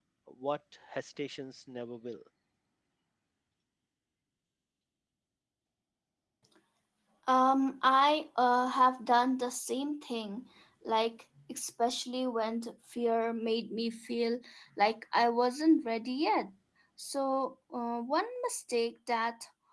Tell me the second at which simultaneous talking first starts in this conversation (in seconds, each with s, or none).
none